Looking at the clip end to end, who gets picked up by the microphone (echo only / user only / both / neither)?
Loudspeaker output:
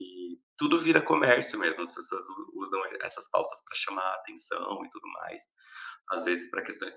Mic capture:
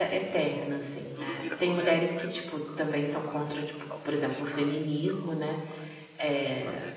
both